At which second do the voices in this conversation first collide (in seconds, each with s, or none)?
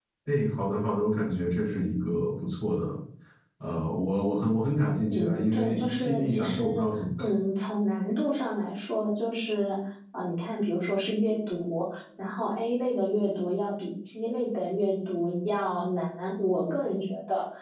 5.1 s